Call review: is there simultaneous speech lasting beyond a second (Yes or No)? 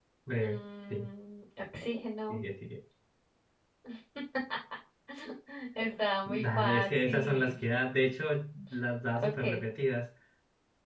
Yes